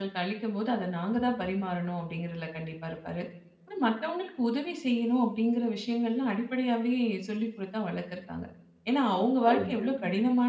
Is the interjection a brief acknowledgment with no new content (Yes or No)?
Yes